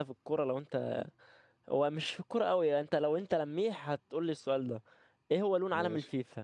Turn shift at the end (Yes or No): No